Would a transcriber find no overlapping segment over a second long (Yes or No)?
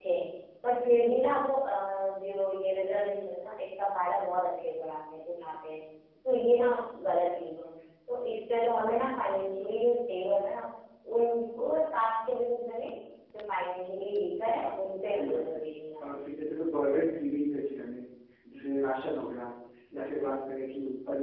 Yes